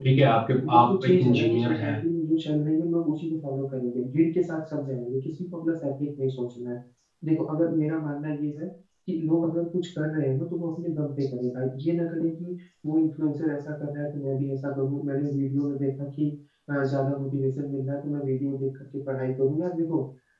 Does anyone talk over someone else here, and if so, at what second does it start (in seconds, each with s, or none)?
0.7 s